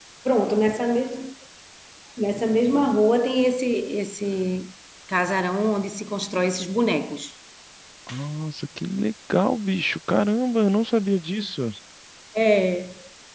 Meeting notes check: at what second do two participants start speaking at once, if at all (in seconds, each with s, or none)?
none